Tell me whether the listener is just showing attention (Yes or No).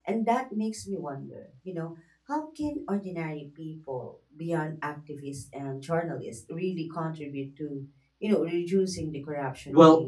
No